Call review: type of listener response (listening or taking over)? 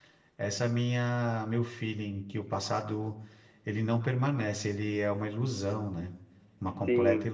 taking over